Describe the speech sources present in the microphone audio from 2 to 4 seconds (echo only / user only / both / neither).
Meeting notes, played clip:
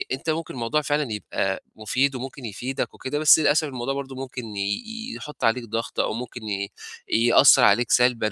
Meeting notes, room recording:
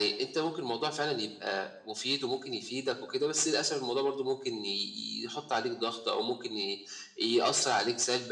echo only